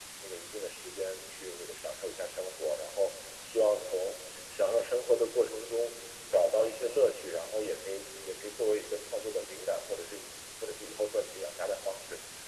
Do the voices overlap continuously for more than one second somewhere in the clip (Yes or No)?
No